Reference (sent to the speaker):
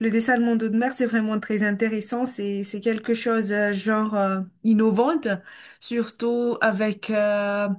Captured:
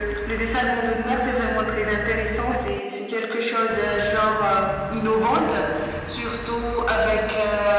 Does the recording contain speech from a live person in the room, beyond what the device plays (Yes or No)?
No